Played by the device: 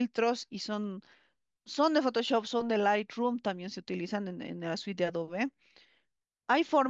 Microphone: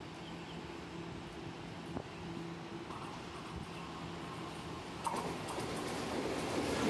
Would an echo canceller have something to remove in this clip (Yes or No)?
No